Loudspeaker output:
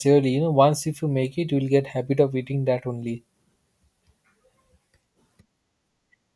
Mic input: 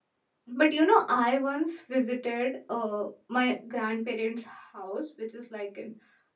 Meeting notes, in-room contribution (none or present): present